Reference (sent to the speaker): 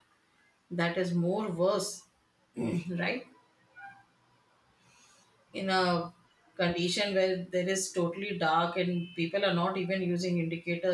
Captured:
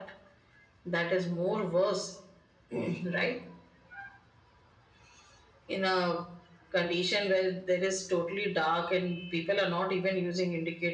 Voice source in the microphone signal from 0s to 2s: echo only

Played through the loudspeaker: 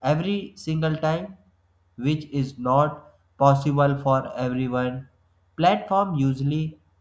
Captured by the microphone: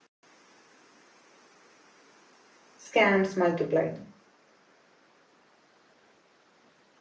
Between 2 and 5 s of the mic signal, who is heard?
user only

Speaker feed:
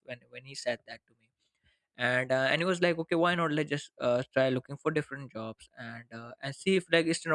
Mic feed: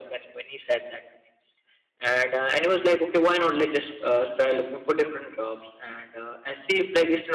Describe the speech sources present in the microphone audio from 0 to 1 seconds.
echo only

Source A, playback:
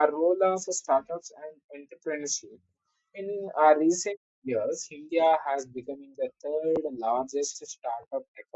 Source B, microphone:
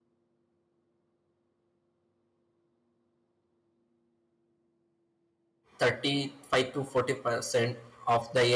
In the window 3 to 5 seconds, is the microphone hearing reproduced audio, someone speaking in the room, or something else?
neither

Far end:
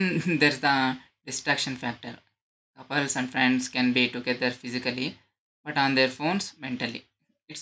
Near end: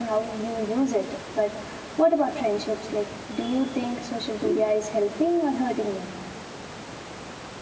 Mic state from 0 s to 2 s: user only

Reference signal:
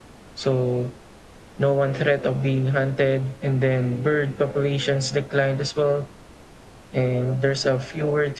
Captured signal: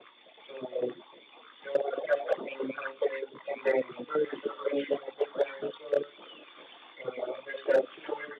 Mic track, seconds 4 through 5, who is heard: echo only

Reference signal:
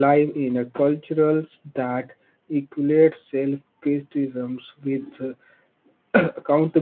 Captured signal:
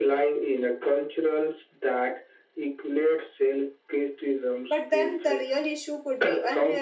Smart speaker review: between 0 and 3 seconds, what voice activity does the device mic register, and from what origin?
echo only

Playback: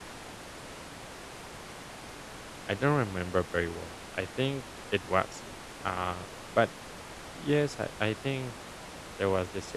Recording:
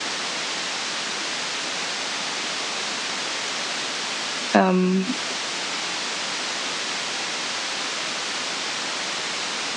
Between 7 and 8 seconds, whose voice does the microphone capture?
neither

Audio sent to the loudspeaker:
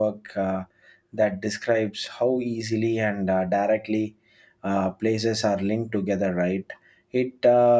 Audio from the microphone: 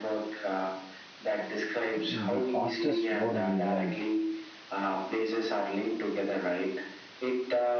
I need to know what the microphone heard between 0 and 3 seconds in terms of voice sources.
both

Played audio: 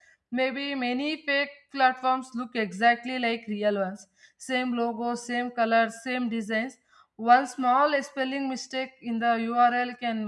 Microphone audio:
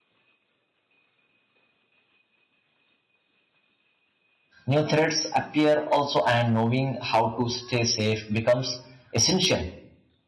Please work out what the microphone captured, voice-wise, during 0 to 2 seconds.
neither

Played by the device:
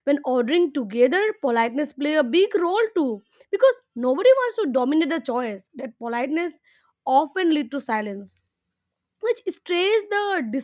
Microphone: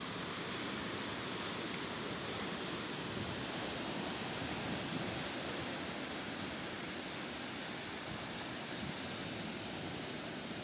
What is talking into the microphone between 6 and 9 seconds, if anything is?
neither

